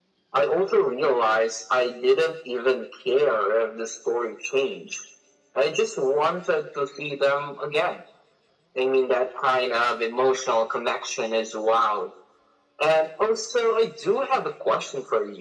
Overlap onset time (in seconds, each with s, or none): none